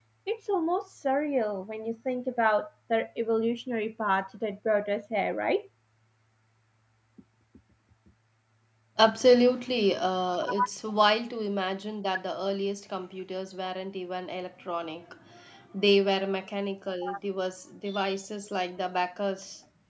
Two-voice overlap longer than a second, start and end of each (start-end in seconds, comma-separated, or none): none